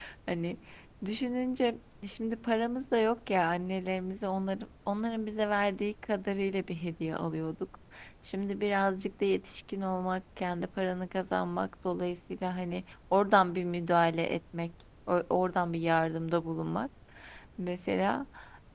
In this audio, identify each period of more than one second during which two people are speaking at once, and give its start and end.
none

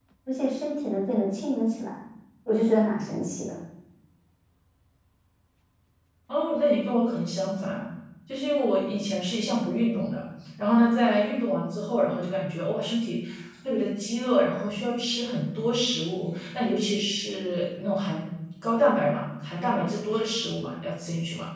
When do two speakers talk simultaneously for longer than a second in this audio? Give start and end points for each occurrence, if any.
none

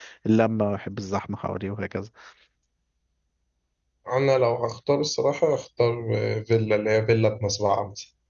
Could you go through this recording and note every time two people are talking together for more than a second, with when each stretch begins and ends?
none

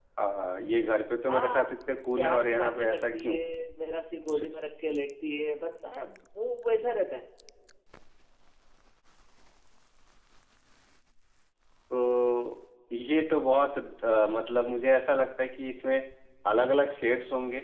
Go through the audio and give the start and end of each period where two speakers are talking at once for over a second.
2.2-3.4

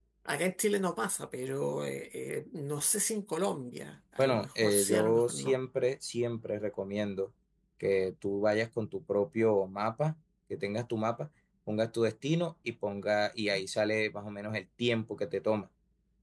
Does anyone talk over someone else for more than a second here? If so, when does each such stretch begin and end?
4.2-5.6

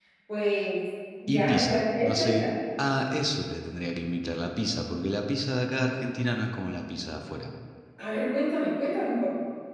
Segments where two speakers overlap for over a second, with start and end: 1.3-2.5

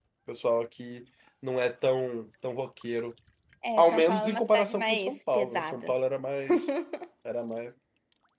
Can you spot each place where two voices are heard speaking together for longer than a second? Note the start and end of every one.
3.8-5.9

